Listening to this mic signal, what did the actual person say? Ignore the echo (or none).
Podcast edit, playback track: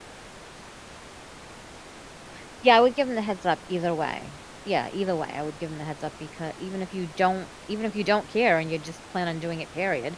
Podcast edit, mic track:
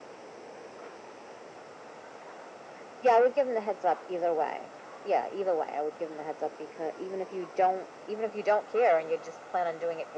none